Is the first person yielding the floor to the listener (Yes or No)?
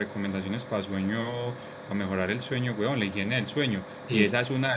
No